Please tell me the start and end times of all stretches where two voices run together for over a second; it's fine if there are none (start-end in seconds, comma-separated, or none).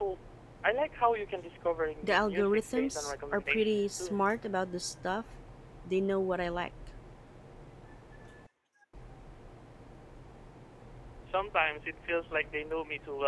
2.0-4.2